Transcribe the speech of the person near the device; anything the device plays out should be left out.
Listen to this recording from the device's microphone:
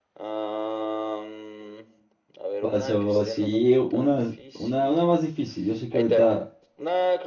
Pasó, sí, una, una, una más difícil. Yo sé que ahorita

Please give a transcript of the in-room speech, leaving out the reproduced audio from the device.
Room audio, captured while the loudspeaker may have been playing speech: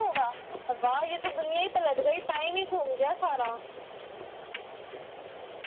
none

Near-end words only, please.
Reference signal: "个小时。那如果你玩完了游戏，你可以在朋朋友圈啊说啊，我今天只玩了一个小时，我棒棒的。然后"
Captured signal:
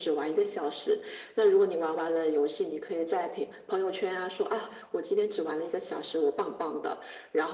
none

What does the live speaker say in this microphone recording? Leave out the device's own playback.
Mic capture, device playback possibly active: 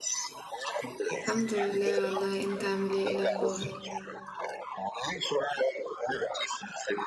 الحمد لله والله انت عامل ايه ايه الاخبار

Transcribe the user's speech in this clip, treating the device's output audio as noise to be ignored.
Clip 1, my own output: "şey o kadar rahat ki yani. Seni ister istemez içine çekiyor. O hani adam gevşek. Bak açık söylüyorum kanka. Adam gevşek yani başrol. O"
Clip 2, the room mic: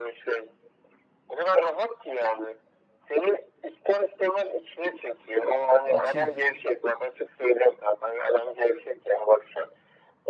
açığım.

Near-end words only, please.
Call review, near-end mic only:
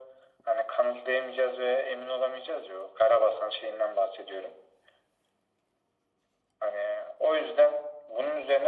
none

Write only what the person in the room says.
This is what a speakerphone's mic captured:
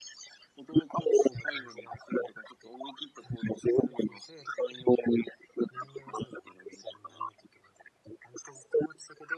none

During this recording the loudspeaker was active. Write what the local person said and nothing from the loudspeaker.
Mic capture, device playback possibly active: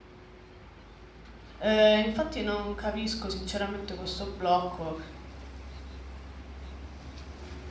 Eh, infatti non capisco sinceramente questo blocco

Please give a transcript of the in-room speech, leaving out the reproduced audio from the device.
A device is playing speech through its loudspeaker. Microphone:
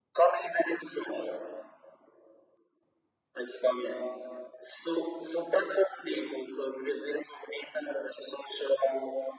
none

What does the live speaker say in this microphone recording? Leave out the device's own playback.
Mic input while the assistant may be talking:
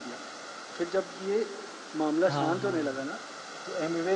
हाँ हाँ

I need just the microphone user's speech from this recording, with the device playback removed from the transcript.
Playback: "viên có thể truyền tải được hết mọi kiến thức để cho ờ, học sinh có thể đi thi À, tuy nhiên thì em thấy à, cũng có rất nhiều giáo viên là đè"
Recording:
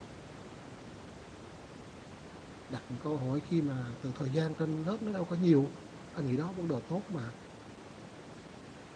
đặt những câu hỏi khi mà từ thời gian trên lớp nó đâu có nhiều anh nghĩ đó vấn đề tốt mà

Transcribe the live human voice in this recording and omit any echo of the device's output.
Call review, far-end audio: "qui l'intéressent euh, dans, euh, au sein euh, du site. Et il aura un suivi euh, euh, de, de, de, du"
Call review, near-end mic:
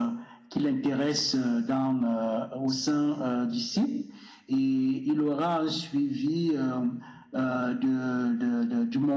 none

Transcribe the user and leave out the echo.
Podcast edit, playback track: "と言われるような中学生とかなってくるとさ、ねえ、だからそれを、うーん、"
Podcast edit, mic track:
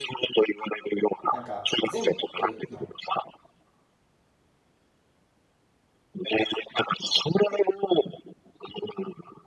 なんか全部の

